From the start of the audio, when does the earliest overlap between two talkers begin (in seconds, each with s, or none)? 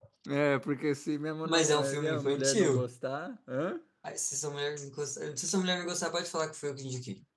1.4 s